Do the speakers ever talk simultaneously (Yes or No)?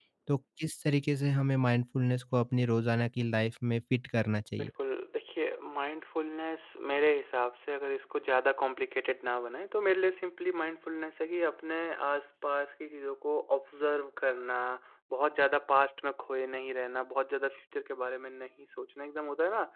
No